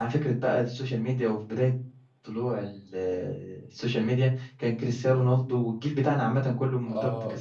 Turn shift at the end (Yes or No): Yes